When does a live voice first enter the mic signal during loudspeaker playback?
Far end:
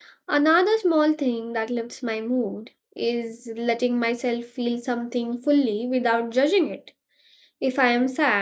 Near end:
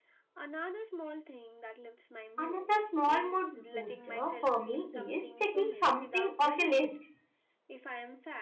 2.4 s

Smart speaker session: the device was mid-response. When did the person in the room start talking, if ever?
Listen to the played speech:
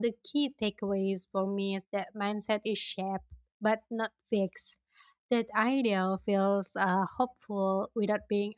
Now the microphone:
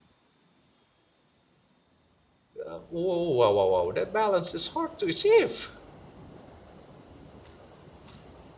2.6 s

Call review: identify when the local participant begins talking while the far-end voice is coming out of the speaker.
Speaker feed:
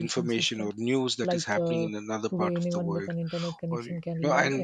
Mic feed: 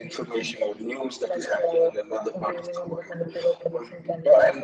none

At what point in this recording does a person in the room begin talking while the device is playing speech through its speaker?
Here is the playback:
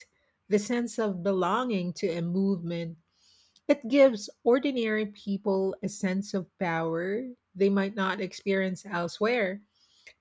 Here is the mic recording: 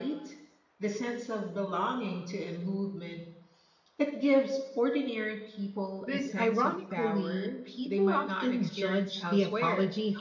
6.1 s

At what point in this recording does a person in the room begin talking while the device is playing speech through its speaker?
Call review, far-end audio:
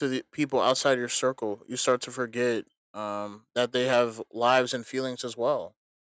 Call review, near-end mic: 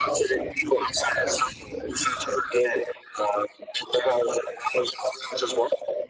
none

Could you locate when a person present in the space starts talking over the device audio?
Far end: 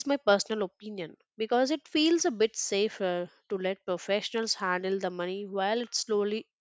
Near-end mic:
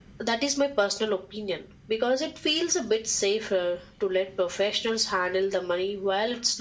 none

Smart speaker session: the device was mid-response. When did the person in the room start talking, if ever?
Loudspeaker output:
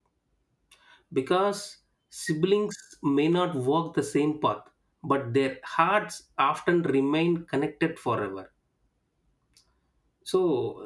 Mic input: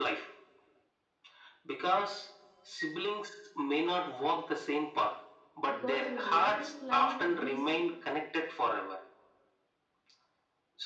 5.7 s

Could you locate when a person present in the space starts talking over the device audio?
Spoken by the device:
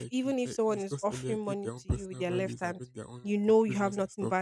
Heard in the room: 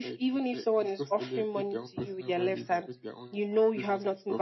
none

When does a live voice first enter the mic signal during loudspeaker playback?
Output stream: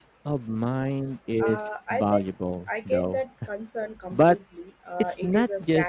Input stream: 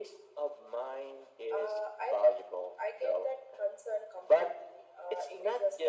none

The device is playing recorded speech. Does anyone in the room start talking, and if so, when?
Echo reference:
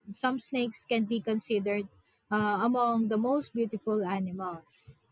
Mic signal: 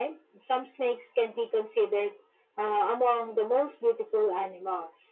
none

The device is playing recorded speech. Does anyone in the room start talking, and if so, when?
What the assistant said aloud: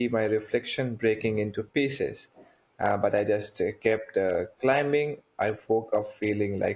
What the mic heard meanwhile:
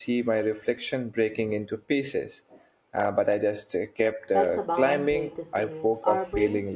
4.3 s

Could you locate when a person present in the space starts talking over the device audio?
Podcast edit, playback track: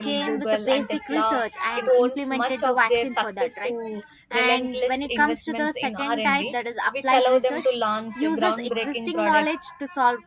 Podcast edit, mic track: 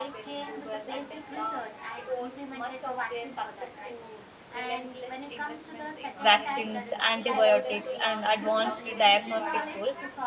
6.2 s

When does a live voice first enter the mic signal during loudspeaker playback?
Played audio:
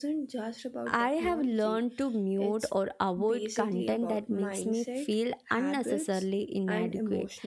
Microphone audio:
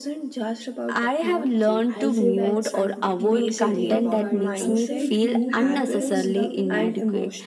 1.9 s

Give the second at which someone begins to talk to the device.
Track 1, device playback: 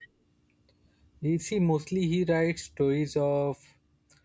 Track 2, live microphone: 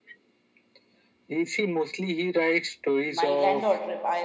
3.1 s

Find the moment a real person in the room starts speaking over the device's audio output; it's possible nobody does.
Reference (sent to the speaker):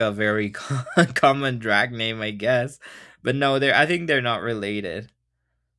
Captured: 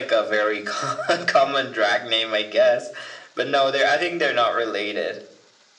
none

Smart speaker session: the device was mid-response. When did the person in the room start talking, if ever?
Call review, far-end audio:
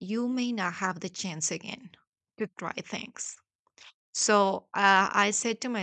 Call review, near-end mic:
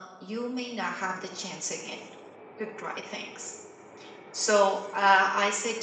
none

